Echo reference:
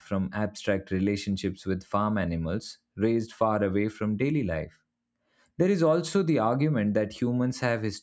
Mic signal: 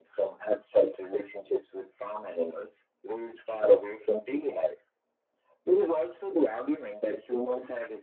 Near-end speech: none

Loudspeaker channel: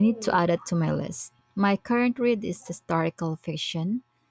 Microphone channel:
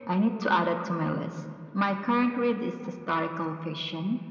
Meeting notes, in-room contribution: none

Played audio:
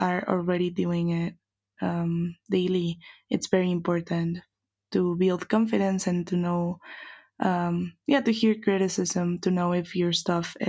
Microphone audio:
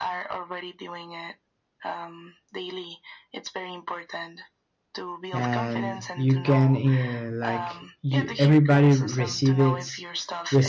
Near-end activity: present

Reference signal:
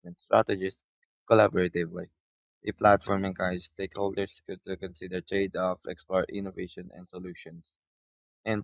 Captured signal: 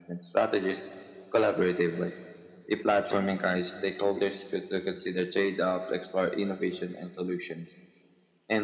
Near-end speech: none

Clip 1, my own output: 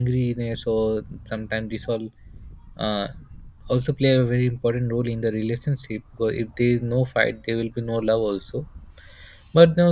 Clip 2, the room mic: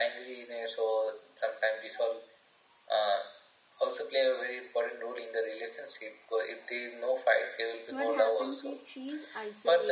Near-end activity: present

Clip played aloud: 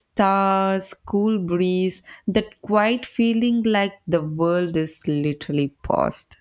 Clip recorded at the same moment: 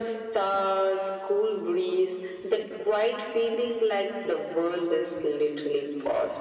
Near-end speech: none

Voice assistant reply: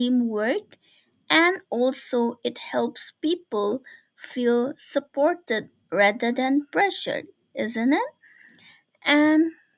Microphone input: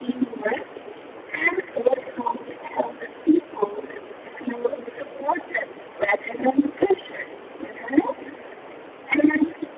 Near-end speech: none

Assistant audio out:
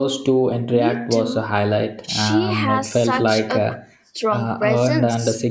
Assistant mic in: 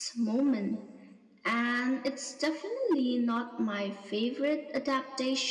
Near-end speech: present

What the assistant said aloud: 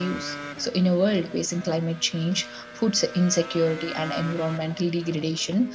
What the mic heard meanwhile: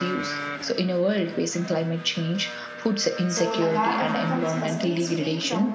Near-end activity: present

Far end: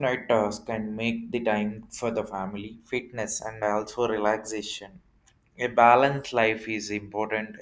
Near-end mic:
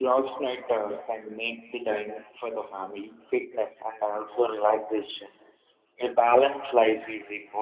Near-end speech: none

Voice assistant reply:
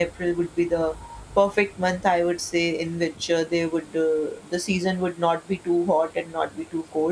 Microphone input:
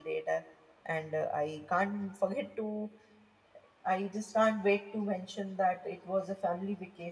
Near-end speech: present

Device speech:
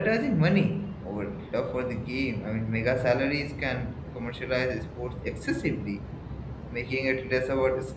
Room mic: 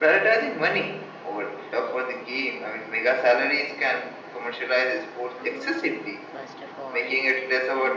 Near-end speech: present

